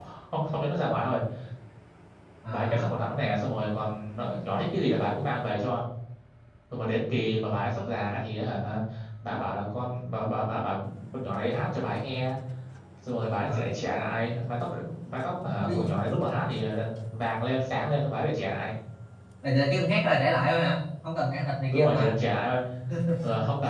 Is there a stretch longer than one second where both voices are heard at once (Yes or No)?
No